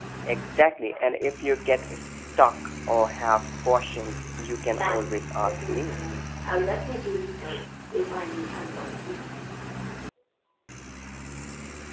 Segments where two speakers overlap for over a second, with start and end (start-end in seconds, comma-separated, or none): 4.8-6.0